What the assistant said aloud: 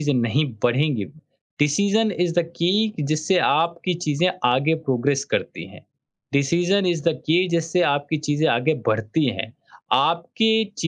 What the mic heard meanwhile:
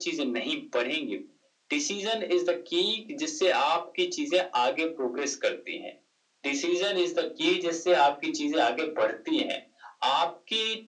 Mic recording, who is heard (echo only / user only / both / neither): echo only